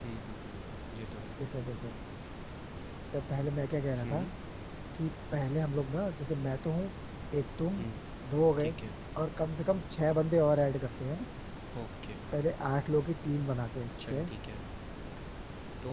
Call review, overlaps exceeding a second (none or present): none